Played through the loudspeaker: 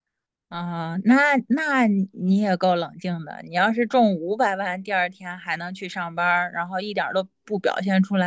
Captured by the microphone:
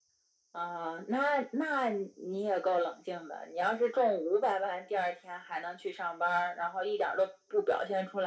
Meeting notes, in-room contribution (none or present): none